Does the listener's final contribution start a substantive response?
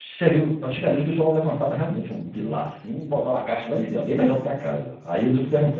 No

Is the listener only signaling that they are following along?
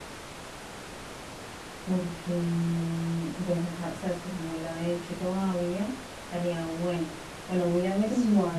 Yes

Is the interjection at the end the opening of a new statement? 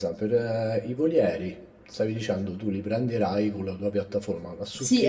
Yes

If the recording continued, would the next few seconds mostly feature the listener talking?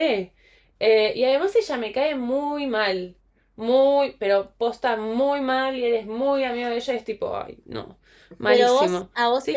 Yes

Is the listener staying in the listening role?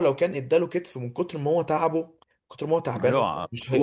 No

